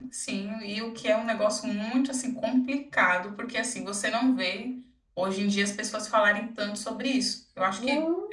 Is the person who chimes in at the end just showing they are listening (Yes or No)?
Yes